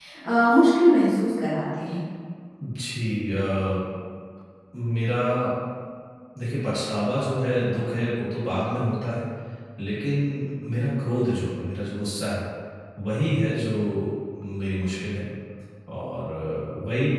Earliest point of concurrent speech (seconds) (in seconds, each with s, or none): none